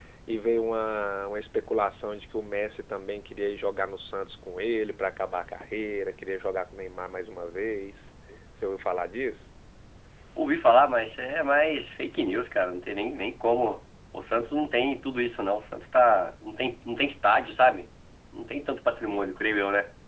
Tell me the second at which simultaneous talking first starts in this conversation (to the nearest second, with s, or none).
none